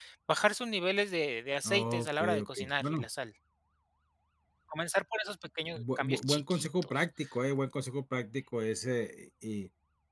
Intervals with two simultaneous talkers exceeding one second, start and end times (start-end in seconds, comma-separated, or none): 1.6-3.0, 5.8-7.0